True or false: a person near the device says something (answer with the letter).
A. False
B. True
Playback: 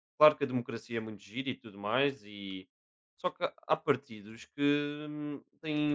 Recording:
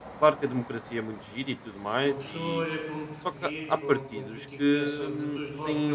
B